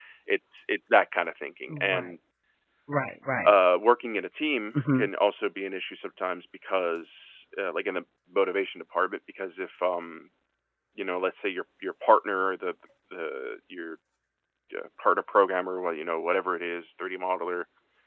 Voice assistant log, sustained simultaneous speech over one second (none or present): none